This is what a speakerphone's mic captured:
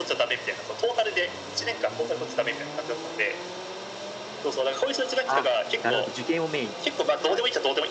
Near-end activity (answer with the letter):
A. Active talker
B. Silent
A